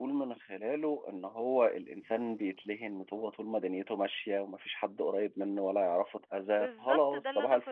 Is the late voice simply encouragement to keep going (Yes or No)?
No